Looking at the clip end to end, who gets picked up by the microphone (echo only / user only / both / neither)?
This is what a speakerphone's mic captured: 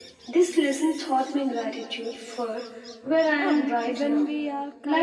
both